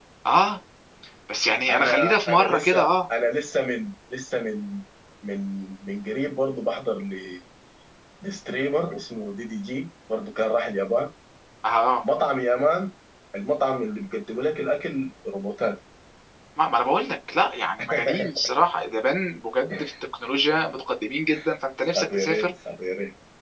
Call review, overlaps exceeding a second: present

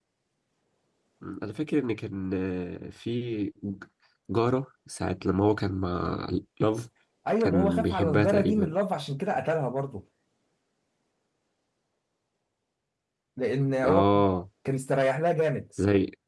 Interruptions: present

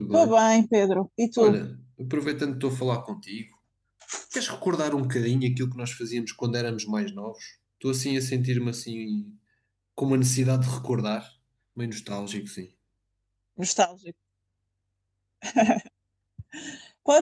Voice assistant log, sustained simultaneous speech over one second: none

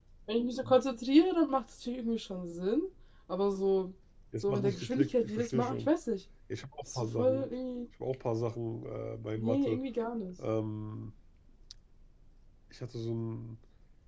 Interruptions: present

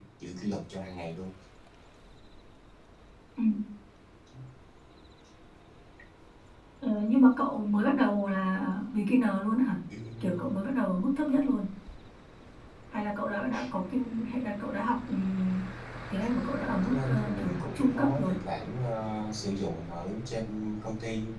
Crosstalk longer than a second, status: present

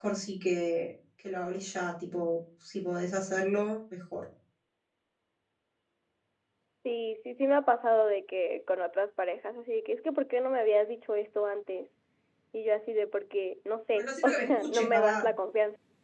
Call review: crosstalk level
present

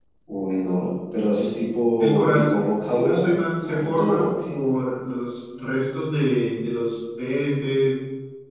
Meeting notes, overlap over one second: present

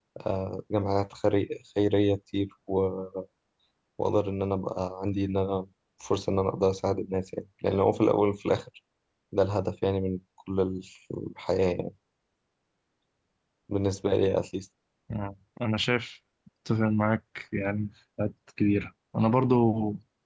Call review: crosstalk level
none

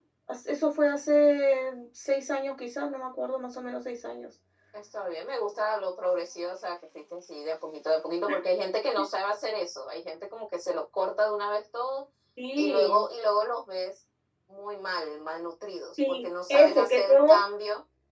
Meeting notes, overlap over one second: present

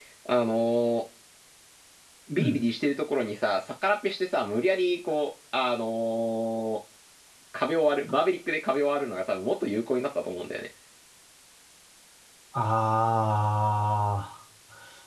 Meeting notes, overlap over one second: none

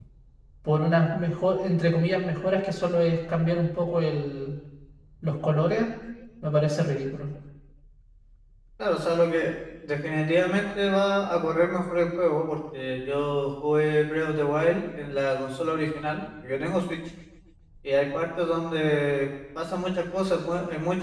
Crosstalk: none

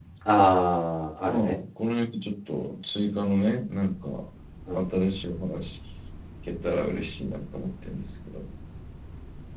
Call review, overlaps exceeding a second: none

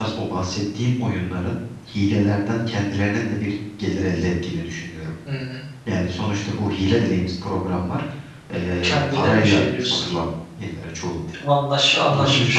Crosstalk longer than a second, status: present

